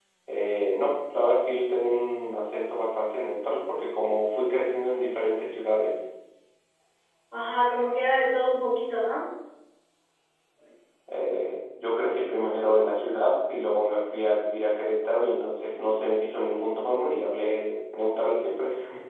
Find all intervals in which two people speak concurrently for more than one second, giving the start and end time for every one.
none

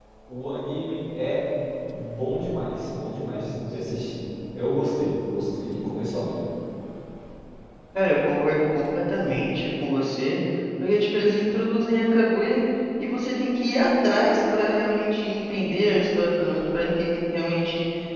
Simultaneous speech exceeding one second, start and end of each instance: none

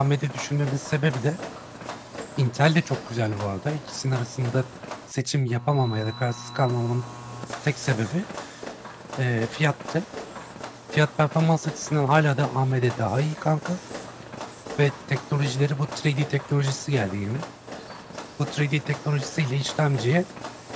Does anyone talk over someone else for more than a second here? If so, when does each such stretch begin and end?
none

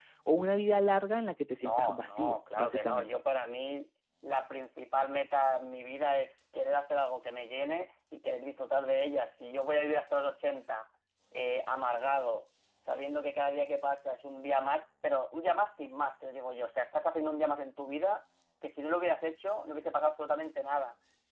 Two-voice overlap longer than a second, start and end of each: 1.6-3.1

